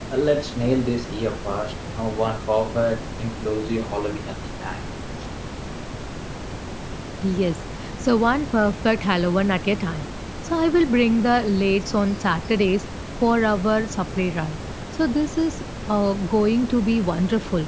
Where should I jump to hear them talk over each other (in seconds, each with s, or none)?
none